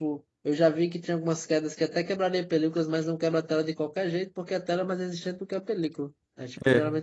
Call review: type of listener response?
listening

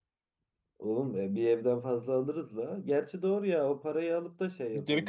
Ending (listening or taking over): taking over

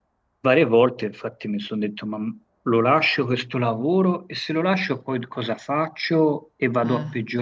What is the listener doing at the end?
listening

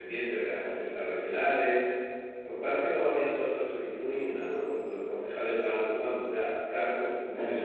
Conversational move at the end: listening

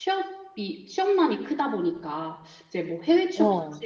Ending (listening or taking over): listening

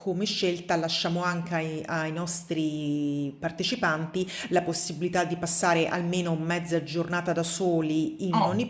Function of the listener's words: taking over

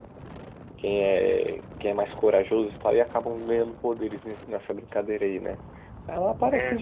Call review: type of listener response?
listening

